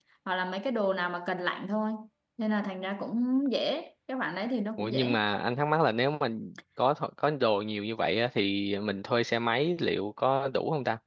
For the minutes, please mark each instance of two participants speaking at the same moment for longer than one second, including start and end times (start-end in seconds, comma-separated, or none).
none